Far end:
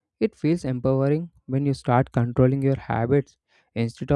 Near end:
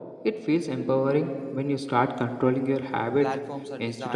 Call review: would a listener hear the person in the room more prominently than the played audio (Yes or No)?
No